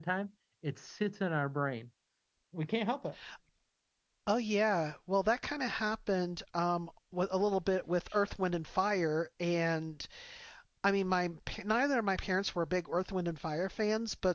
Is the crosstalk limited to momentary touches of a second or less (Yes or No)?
Yes